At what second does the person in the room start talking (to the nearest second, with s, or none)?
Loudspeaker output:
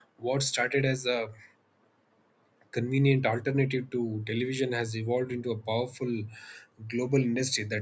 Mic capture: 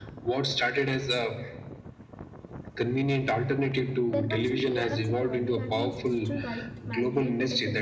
4 s